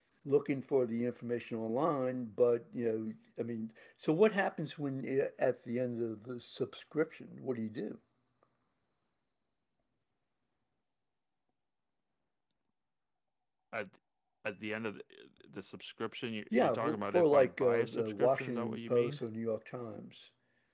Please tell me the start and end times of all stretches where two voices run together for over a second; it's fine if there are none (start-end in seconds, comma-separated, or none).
16.5-19.2